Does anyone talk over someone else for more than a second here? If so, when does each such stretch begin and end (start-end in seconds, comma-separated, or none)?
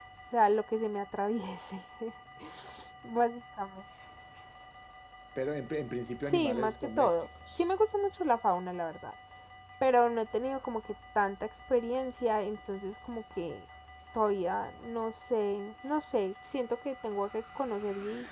6.2-7.6